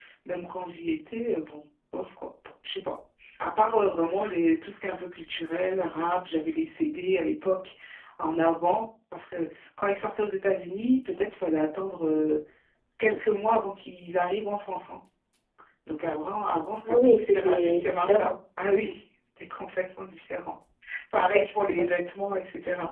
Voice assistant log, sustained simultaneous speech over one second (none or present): present